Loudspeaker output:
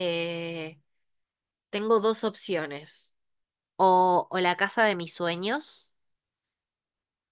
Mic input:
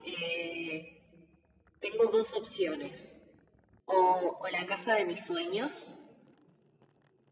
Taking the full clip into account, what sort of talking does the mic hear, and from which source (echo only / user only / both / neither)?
echo only